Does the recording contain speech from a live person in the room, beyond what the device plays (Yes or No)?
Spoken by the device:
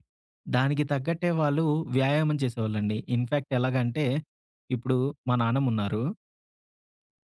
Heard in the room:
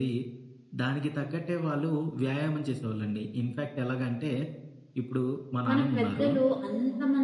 Yes